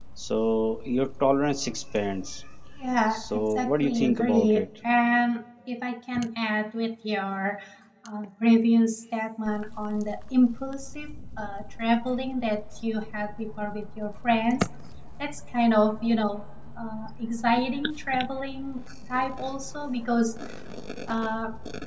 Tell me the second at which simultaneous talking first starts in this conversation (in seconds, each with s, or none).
3.1 s